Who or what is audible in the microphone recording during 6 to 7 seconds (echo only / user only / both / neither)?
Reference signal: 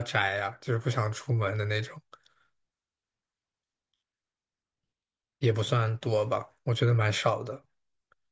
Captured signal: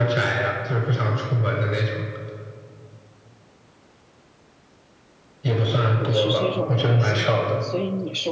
both